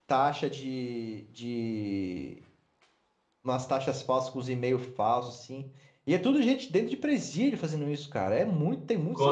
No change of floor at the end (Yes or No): No